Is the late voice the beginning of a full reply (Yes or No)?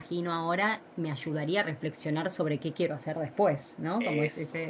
No